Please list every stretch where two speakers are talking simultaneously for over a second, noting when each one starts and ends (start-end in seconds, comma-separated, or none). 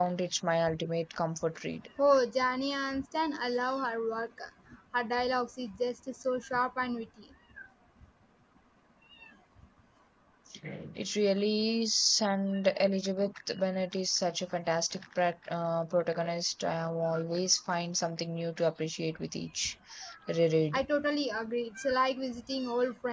none